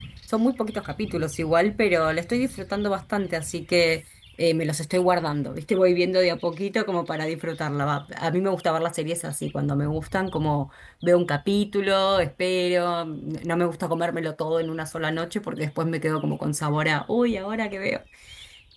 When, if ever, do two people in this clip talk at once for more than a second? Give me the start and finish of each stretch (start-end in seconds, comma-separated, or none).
none